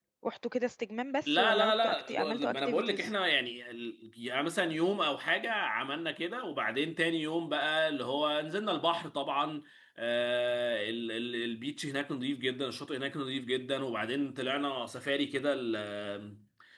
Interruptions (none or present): present